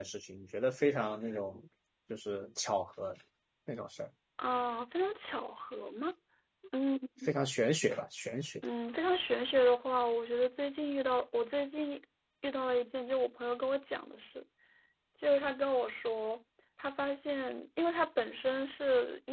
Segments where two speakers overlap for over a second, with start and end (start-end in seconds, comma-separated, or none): none